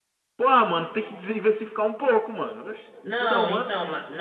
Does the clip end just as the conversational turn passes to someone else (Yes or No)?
Yes